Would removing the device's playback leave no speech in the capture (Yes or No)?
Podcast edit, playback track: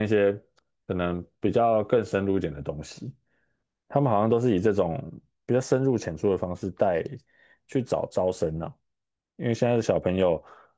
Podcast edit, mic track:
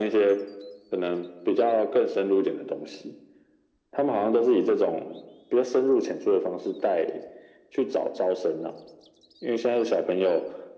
Yes